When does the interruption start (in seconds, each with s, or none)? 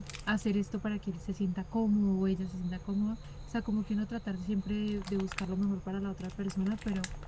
none